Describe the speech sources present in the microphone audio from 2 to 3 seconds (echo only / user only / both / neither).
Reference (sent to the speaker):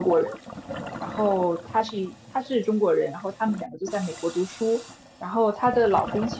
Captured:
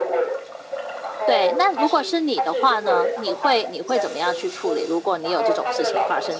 both